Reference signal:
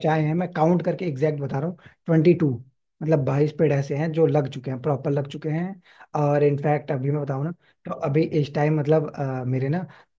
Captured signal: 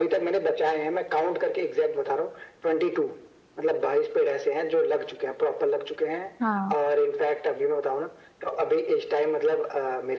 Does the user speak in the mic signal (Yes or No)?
Yes